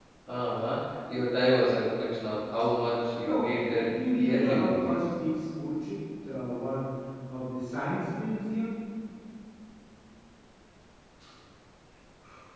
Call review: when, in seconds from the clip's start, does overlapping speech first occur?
3.2 s

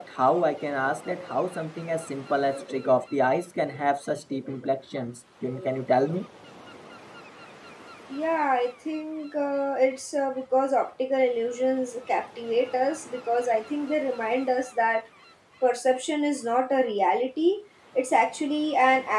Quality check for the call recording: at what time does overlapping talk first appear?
none

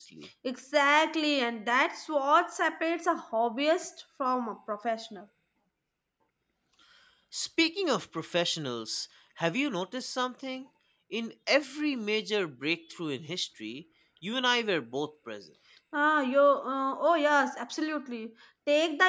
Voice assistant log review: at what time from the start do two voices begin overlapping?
none

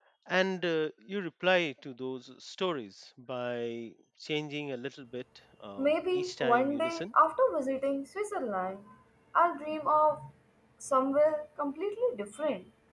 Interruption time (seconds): 5.8 s

